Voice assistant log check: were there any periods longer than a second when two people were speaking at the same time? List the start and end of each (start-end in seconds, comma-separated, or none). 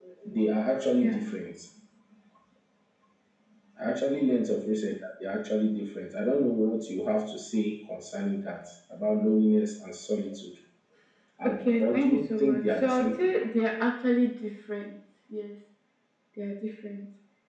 11.4-13.3